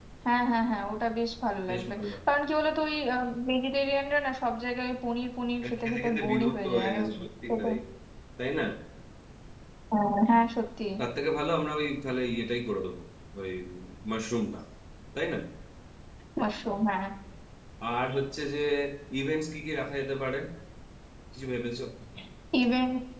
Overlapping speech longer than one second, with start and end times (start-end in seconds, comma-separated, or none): 5.6-7.0